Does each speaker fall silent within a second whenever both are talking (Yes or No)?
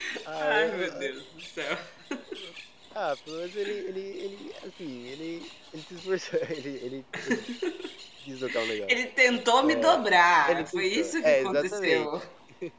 No